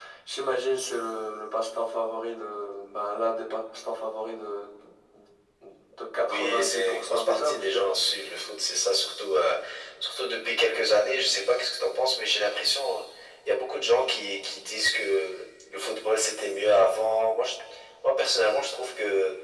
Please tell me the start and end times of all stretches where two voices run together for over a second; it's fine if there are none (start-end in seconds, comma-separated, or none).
6.3-7.9